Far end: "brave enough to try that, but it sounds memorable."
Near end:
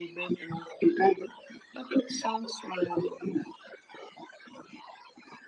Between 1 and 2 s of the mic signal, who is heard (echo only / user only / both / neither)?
echo only